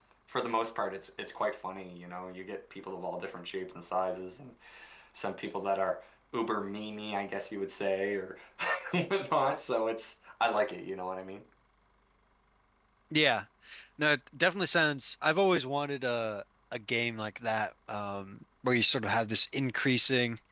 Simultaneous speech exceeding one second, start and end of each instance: none

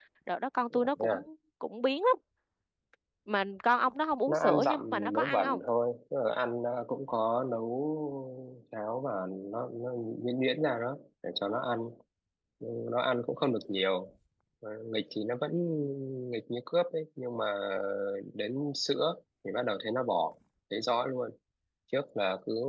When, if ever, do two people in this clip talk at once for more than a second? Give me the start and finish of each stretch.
4.3-5.6

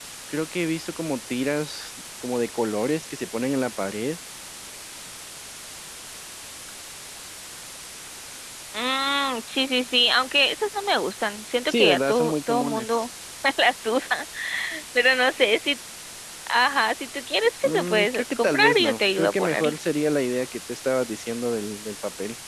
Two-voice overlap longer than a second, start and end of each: 11.7-13.0, 17.6-19.7

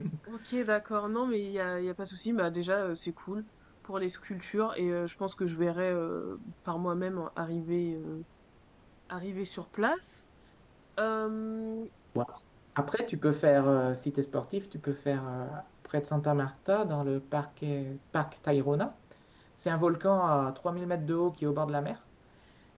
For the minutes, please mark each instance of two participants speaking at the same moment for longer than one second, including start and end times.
none

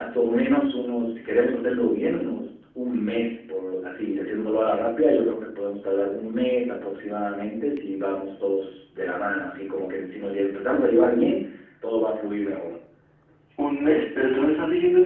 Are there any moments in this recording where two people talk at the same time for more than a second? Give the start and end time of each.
none

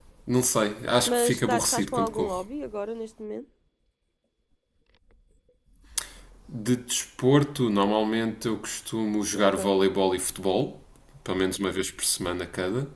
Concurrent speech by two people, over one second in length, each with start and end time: 1.1-2.5

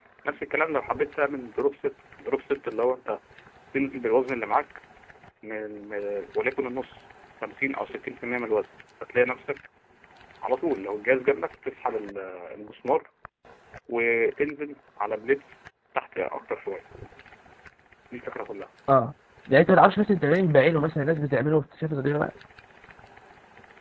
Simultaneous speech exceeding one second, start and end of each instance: none

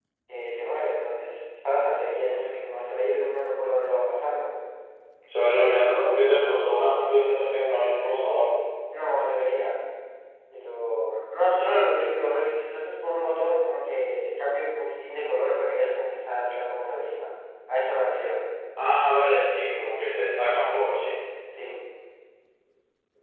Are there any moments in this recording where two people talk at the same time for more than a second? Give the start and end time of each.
none

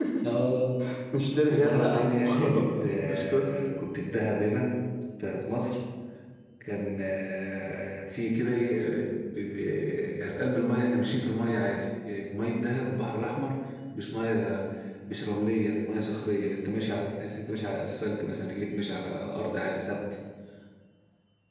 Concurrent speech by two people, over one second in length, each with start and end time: 1.5-3.4

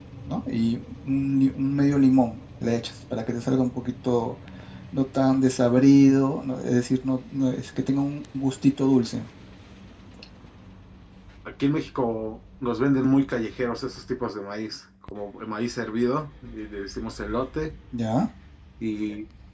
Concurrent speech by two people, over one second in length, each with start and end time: none

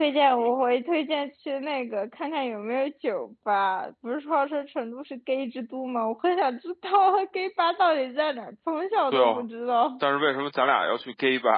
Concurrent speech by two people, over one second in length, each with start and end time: none

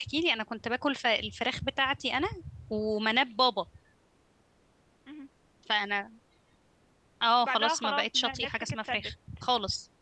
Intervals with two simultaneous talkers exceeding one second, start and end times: 7.4-9.1

